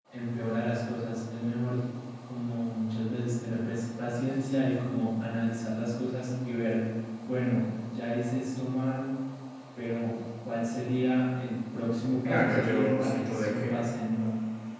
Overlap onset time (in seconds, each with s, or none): 12.2 s